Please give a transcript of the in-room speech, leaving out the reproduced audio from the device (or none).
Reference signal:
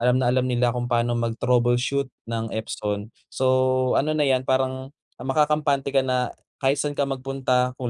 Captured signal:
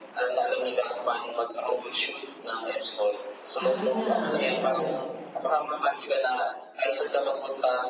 Sabi nga, oo.